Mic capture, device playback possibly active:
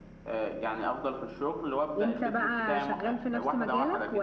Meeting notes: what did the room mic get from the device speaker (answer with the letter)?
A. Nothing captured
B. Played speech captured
B